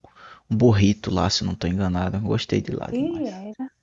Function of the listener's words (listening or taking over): taking over